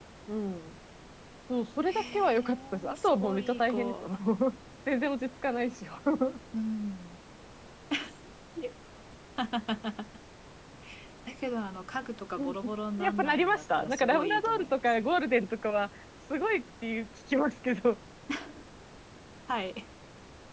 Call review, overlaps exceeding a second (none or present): present